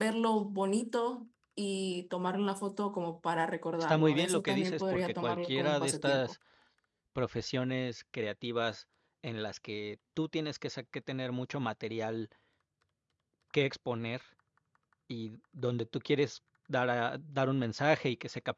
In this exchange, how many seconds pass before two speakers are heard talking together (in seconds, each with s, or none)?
3.8 s